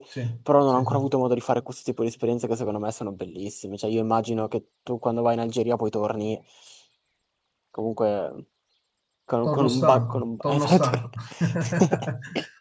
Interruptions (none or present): present